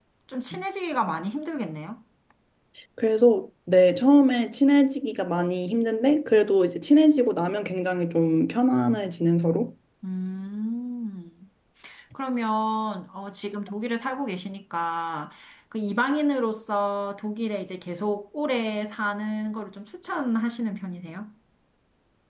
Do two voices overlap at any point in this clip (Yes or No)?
No